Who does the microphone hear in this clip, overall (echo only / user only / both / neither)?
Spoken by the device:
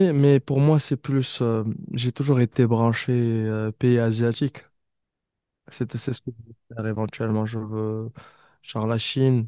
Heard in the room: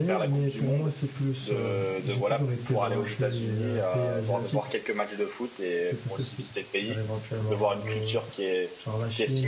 both